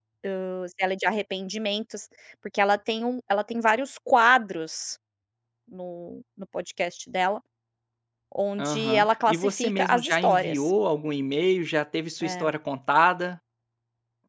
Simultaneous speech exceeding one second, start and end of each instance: 8.6-10.7

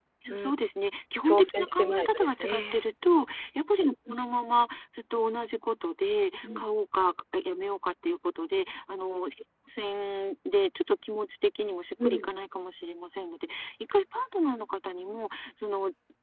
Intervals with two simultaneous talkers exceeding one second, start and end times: 1.2-2.8

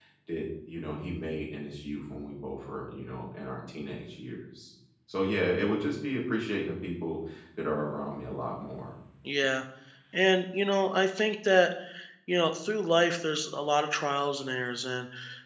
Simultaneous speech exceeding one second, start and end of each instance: none

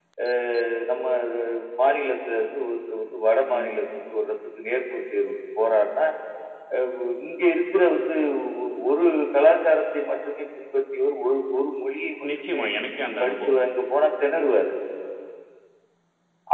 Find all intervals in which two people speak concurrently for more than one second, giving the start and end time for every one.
none

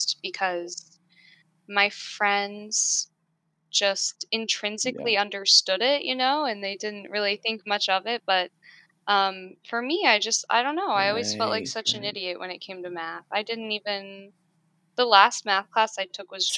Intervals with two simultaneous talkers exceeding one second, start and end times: 10.9-12.2

